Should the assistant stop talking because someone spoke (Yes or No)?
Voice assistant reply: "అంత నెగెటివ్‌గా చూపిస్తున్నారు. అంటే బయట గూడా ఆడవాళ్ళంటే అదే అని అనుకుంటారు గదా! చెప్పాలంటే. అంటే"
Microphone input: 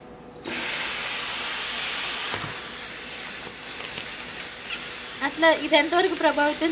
Yes